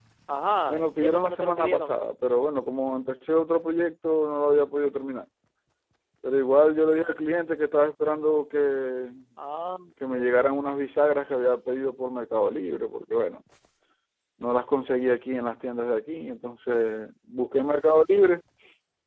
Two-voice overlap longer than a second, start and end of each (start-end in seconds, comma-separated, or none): 0.7-2.0